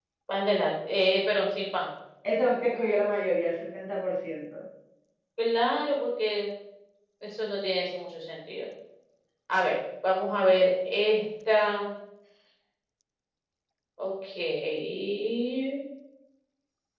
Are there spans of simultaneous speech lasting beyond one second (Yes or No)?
No